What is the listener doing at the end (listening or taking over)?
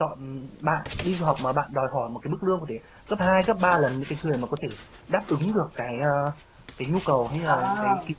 listening